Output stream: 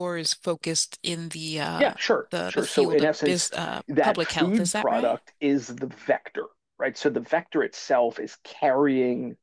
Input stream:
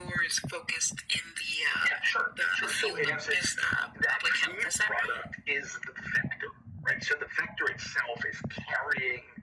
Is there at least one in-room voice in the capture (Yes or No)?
No